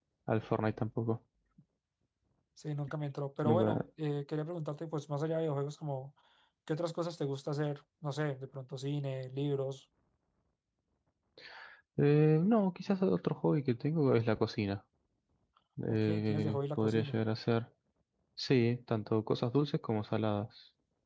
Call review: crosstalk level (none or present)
present